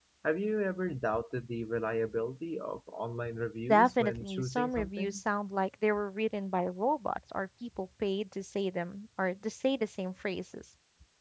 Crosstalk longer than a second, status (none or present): present